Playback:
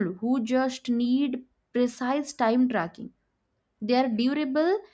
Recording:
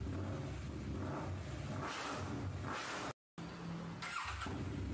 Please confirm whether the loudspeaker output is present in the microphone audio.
No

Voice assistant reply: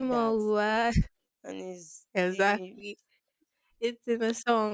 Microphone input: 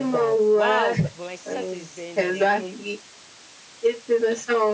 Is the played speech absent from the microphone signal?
No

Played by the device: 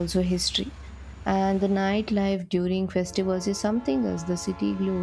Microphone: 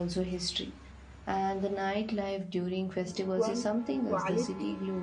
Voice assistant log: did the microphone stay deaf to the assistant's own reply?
No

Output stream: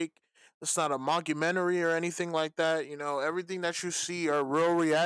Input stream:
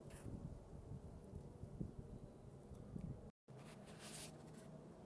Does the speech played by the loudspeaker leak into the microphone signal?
No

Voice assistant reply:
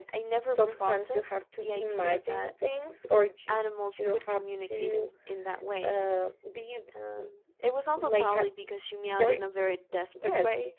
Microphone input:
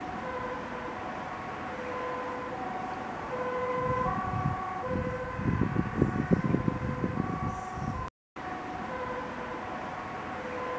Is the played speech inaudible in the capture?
Yes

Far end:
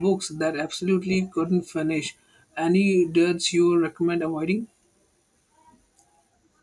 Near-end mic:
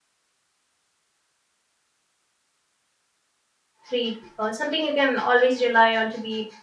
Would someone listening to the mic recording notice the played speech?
No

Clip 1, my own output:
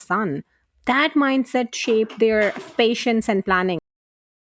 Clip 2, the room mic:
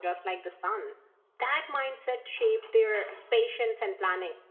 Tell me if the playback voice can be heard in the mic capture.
Yes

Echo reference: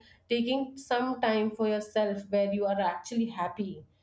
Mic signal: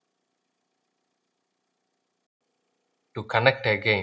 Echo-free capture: Yes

